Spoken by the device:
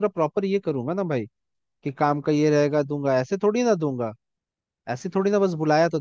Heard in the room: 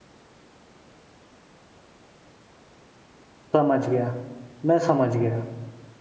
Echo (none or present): none